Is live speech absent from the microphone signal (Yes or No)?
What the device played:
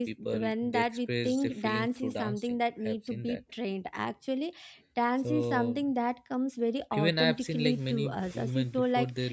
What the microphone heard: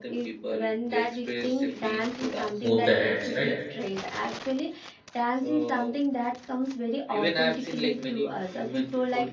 No